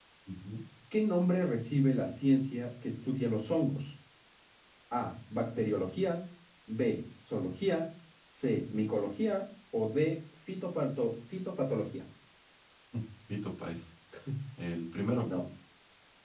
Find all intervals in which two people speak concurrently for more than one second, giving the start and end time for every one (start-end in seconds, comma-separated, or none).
none